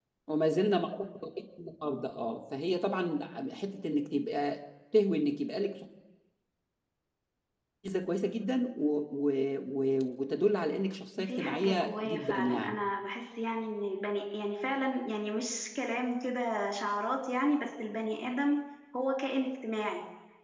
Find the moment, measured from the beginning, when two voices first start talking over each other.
11 s

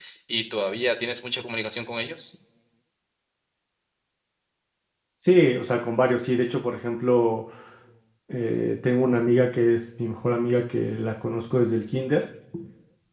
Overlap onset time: none

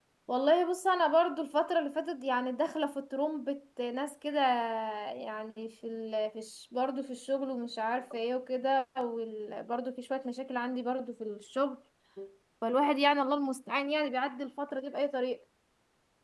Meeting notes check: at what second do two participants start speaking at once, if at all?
none

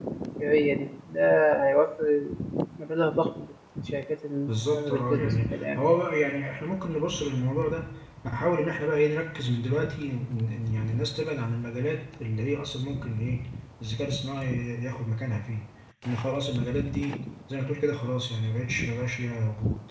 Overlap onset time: 4 s

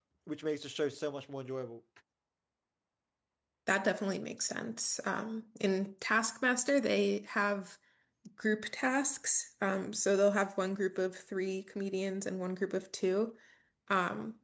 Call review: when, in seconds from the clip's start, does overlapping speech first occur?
none

